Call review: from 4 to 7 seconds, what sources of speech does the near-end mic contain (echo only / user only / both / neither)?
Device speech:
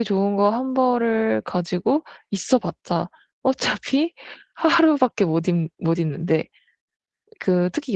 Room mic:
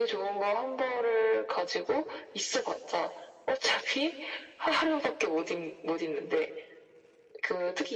echo only